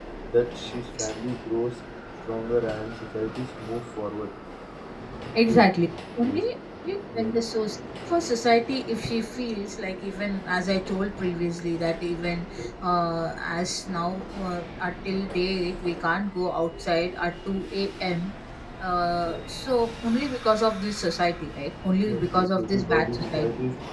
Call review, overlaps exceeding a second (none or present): present